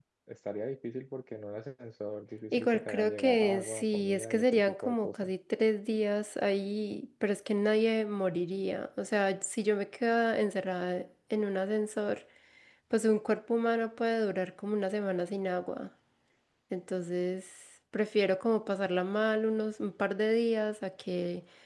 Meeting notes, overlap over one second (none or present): present